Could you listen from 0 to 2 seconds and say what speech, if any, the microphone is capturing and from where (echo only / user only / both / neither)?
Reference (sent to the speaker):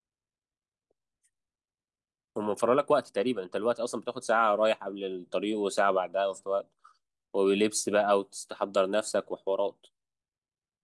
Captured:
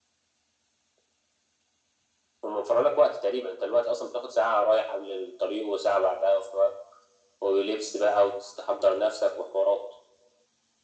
neither